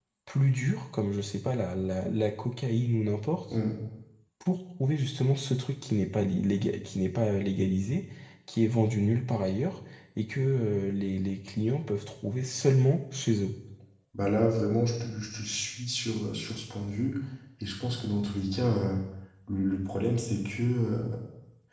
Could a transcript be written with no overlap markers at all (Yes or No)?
Yes